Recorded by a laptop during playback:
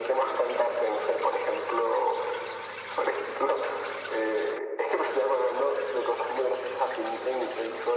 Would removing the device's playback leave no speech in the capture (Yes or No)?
Yes